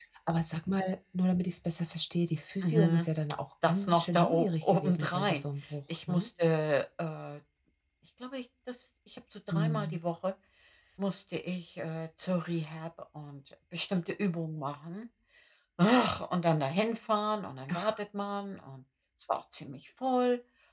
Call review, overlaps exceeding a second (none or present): present